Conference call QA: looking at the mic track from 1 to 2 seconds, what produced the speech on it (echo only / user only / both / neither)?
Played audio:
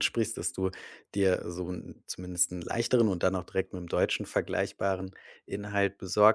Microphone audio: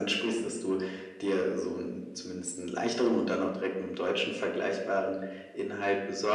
echo only